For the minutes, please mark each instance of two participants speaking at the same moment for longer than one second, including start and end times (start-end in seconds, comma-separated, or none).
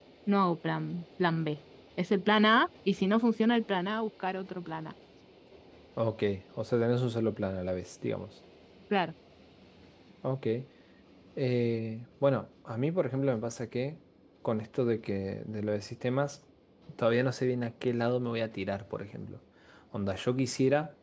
none